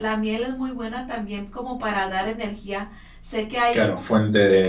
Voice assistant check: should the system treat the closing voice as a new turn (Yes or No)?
Yes